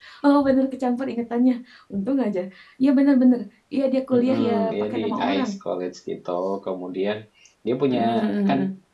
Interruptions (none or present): present